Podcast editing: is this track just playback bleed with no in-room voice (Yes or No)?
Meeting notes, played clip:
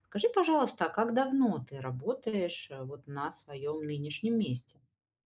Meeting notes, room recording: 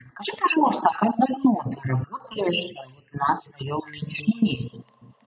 Yes